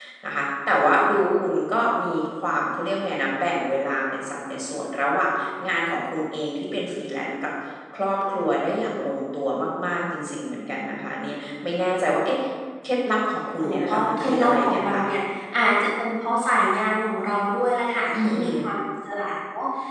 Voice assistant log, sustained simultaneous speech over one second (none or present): present